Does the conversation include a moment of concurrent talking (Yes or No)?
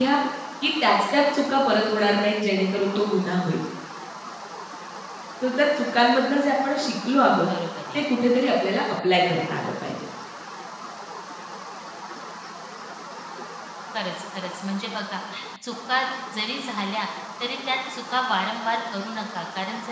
No